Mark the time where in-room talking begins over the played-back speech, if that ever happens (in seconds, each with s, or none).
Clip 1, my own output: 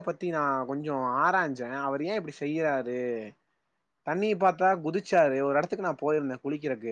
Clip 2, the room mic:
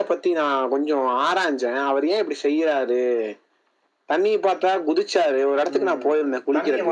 5.7 s